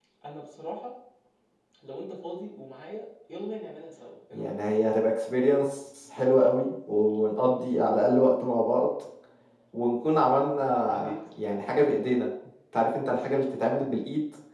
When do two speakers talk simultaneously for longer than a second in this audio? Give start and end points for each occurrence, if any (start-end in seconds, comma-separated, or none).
none